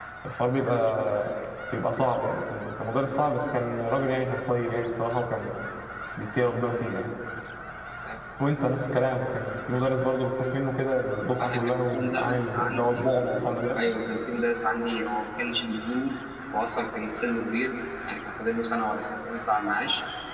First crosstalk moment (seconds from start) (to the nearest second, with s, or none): 11 s